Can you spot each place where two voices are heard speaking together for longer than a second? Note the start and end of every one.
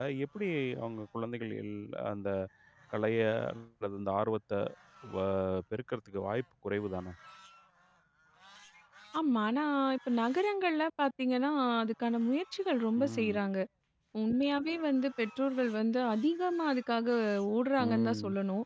none

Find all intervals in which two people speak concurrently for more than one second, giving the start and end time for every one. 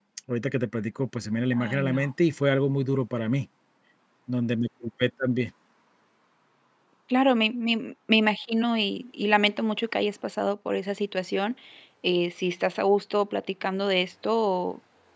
none

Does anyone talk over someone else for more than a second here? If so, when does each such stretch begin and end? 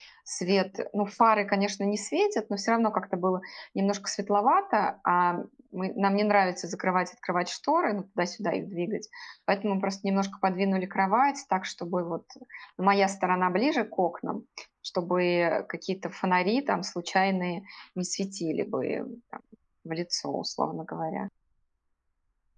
none

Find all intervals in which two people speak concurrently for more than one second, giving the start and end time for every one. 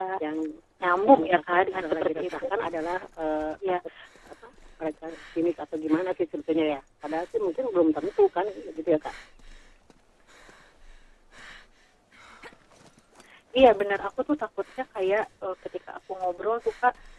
1.1-2.4

